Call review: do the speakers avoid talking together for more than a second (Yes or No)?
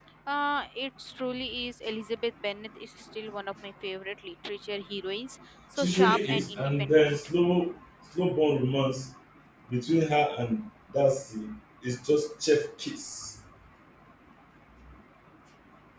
No